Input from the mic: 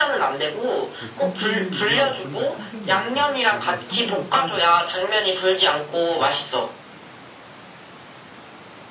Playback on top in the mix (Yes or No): Yes